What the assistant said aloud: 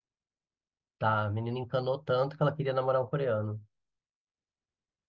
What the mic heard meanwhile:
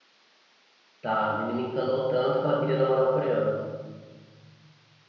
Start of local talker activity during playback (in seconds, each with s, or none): none